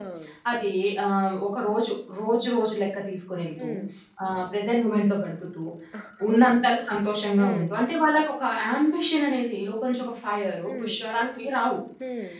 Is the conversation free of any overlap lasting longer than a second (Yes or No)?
Yes